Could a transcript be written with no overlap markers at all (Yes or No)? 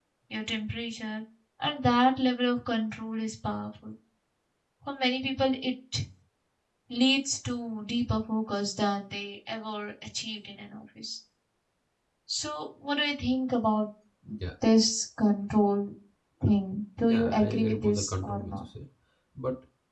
No